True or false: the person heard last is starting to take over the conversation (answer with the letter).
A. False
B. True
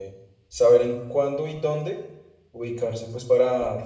B